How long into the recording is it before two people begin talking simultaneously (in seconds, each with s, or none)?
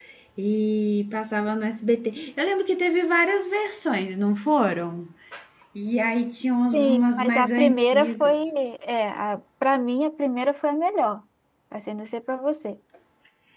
6.7 s